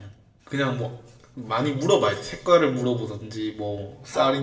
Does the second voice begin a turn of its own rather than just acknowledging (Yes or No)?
No